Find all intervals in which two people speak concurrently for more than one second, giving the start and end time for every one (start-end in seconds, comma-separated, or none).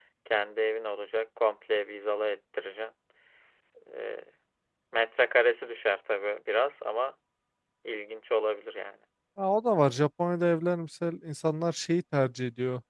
none